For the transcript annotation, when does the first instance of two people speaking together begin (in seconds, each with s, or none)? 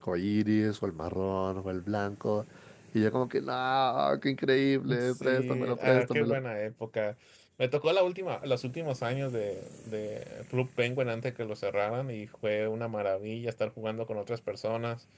4.9 s